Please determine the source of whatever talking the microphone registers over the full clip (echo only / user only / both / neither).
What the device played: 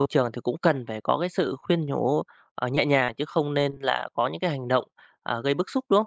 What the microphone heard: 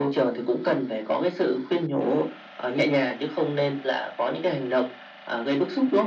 echo only